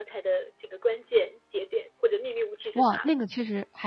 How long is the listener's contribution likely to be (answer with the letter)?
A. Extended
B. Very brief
A